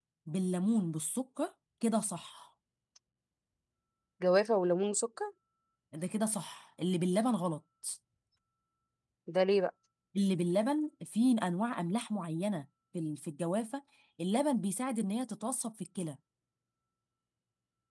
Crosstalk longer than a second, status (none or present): none